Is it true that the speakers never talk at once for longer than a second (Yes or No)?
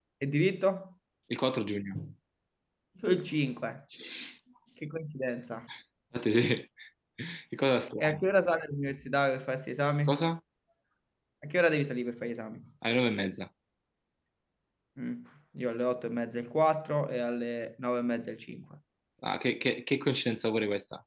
Yes